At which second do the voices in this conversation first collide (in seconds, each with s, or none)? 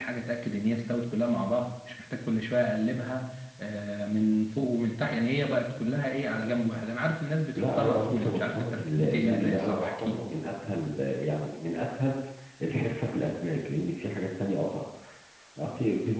7.6 s